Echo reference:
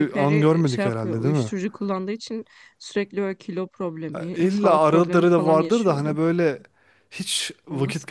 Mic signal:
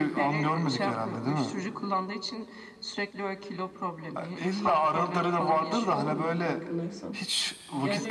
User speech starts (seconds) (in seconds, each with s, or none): 5.4 s